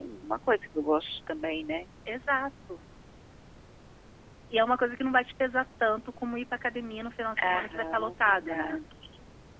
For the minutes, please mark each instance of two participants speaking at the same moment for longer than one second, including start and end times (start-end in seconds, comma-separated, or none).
7.4-8.8